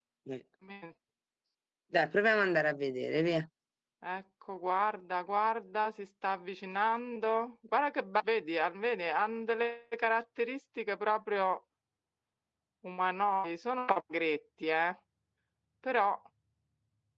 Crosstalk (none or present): none